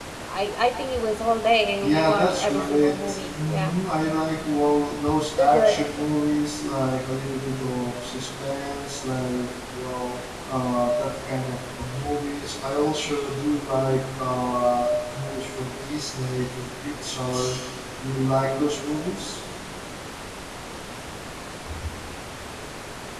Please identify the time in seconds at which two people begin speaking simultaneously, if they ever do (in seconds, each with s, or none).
1.8 s